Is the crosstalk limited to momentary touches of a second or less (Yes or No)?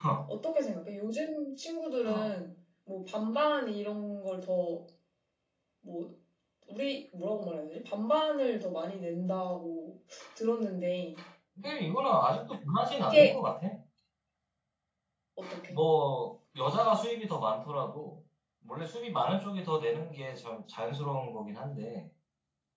Yes